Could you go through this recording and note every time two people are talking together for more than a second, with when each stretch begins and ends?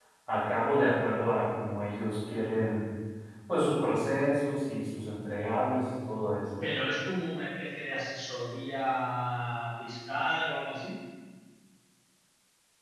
none

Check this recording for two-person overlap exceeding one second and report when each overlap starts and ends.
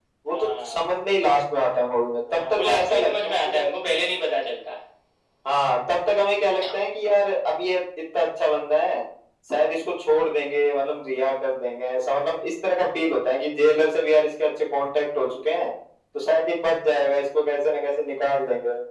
2.3-3.7

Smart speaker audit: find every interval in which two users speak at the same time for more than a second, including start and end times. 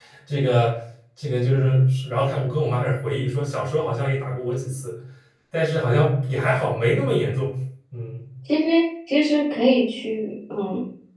none

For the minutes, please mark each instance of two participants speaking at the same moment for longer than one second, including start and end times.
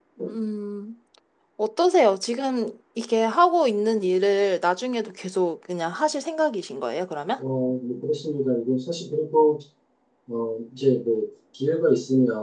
none

